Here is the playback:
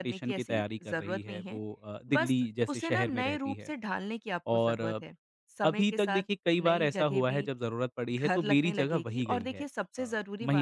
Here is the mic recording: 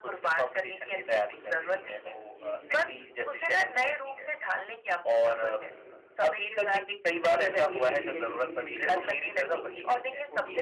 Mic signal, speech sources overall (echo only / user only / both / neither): both